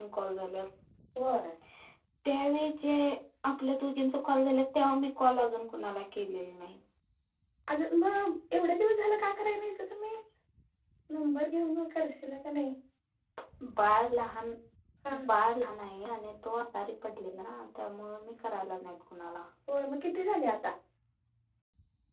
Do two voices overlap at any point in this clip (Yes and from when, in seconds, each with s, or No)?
No